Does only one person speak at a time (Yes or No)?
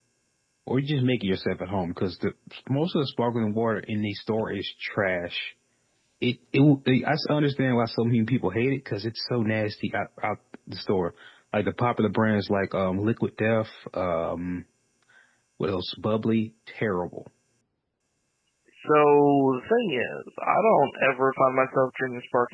Yes